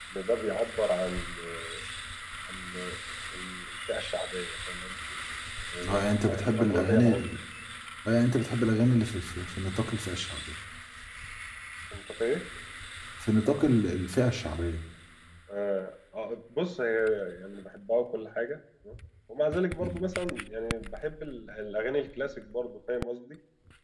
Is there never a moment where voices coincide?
No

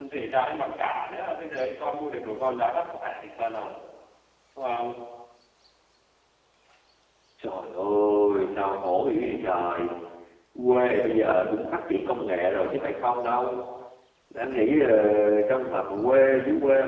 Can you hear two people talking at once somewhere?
No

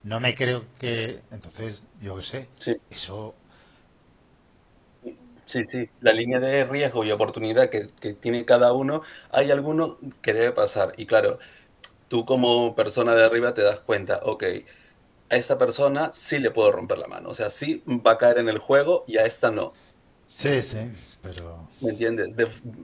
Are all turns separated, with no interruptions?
Yes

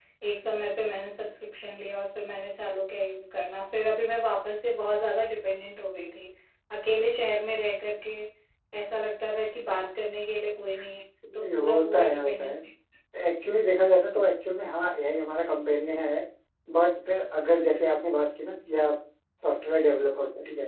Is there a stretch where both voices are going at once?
Yes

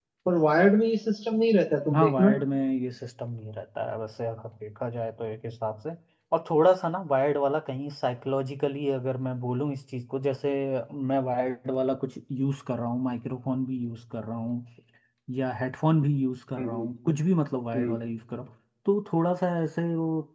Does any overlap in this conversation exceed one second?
No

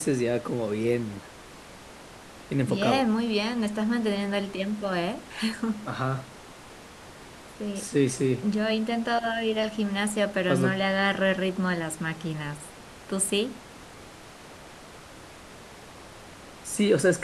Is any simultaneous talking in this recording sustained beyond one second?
No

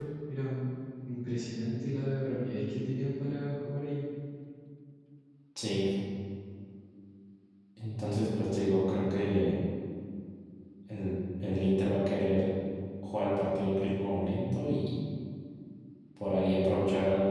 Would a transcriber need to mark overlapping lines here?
No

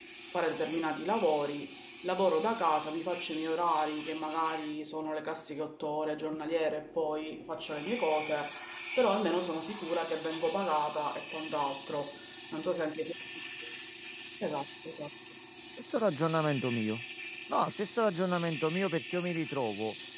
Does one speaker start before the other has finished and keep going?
No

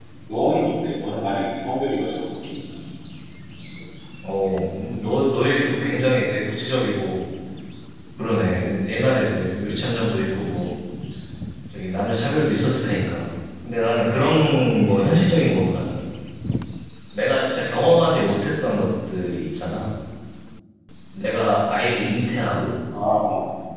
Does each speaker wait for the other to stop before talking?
Yes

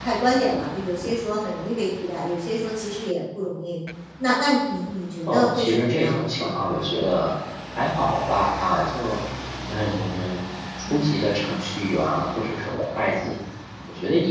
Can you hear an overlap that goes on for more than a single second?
Yes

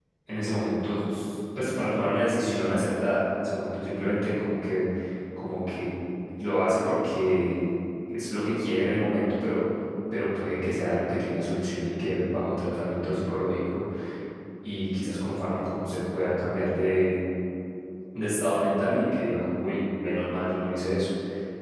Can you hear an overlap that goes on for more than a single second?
No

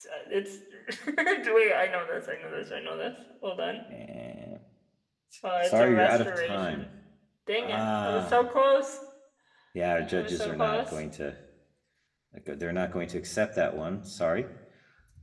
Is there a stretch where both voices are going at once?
Yes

